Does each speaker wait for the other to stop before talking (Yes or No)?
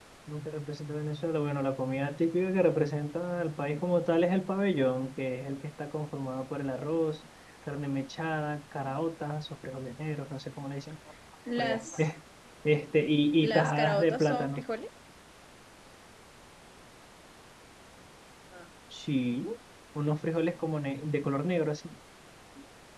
No